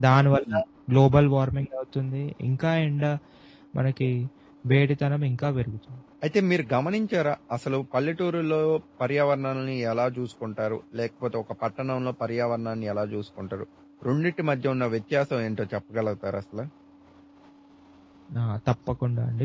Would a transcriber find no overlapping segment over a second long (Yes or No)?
Yes